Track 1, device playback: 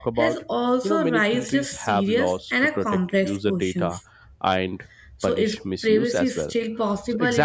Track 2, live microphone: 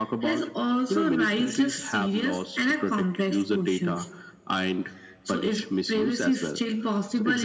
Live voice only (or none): none